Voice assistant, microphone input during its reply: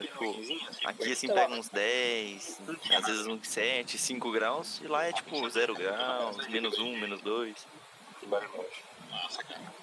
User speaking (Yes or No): Yes